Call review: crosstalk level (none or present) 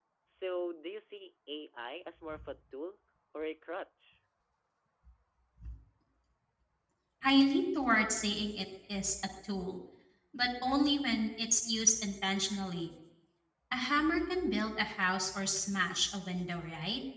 none